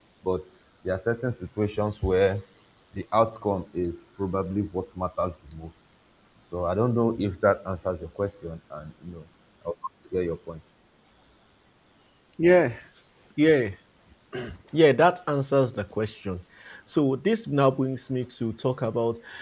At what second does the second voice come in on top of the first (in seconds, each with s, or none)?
none